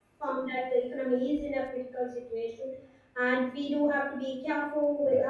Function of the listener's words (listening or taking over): listening